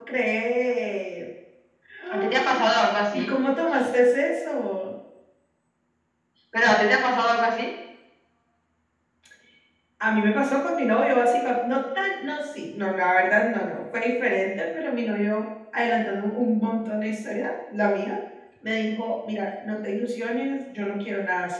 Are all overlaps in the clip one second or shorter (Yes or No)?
Yes